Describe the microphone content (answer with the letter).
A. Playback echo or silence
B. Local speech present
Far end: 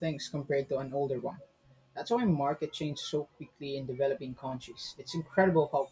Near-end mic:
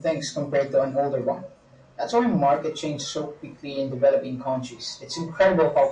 A